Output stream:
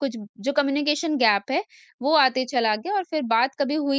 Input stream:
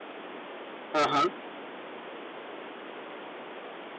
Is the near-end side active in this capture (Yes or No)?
Yes